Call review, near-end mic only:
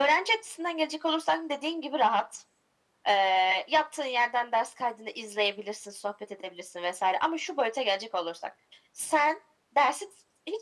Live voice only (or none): none